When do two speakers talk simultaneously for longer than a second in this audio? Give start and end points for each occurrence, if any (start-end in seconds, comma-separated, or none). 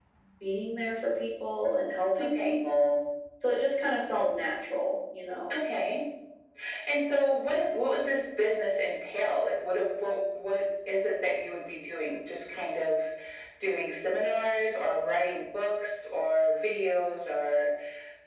none